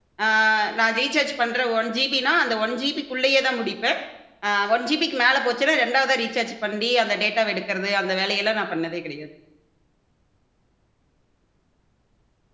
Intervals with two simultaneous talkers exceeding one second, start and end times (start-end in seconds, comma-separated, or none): none